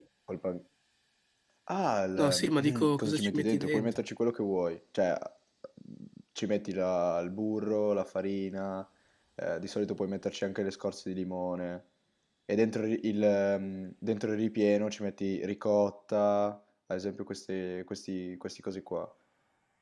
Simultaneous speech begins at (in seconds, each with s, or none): 2.2 s